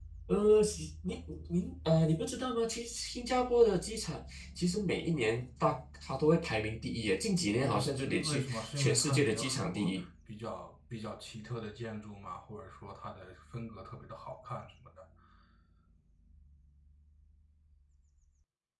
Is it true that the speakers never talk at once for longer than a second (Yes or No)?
No